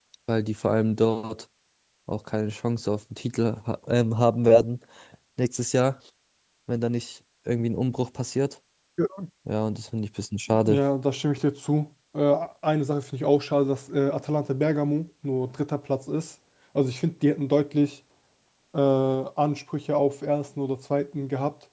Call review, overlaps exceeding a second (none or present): none